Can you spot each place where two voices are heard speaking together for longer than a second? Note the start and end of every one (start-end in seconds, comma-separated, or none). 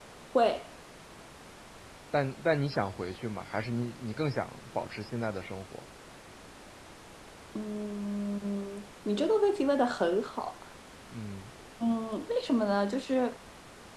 none